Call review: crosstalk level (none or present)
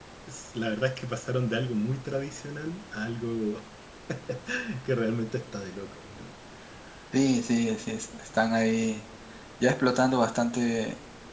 none